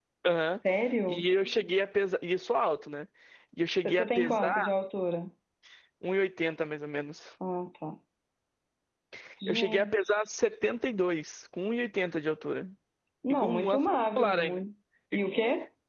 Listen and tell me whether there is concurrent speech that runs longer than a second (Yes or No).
Yes